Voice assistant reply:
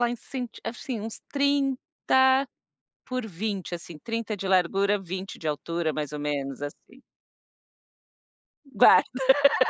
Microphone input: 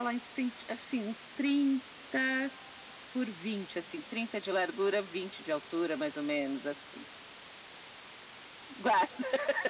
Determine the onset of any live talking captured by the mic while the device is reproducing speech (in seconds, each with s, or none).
none